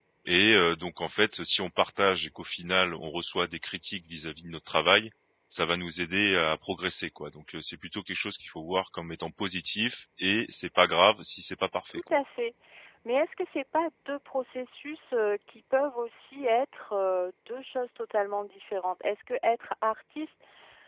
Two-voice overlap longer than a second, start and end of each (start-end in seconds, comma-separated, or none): none